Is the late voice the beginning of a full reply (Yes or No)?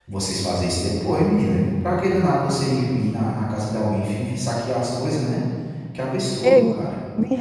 Yes